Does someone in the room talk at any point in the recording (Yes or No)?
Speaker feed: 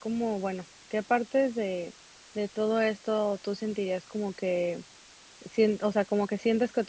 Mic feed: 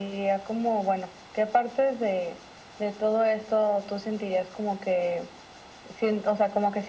No